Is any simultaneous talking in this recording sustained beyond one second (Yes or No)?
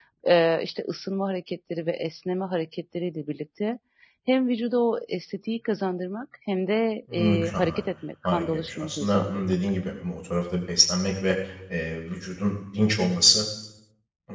Yes